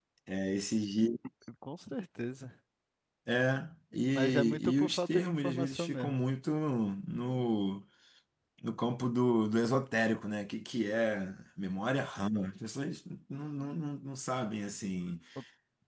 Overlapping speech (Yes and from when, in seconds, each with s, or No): Yes, from 4.2 s